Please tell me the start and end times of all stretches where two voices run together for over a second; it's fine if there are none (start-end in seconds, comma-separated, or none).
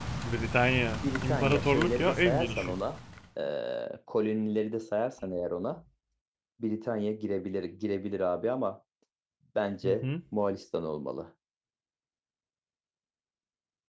1.0-2.8